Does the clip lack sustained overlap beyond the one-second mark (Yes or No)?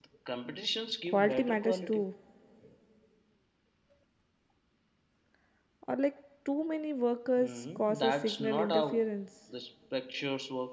No